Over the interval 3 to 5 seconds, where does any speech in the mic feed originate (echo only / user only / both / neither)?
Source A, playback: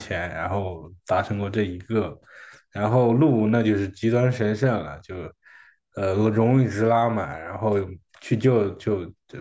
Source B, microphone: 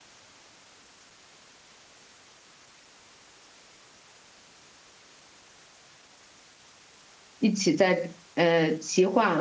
neither